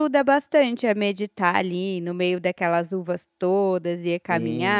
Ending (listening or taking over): taking over